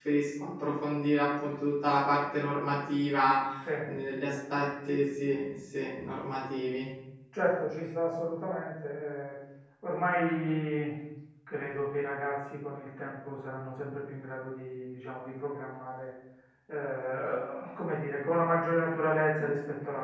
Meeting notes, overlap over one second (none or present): none